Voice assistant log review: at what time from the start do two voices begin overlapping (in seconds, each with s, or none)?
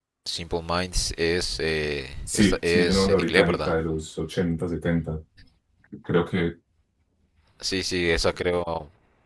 2.3 s